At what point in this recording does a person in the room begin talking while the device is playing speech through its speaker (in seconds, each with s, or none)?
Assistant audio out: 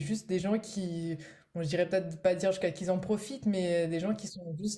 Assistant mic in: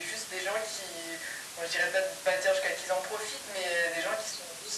none